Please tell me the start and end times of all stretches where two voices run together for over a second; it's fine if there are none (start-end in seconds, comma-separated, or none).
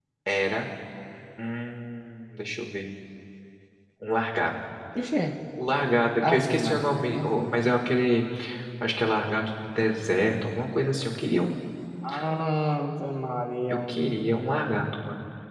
6.3-7.7